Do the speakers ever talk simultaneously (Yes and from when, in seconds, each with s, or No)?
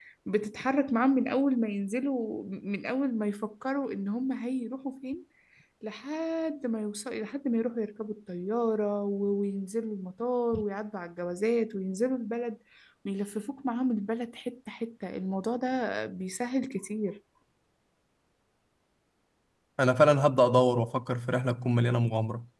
No